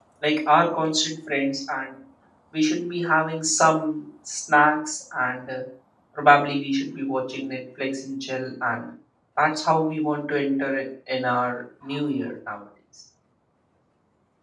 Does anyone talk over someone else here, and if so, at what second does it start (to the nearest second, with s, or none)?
none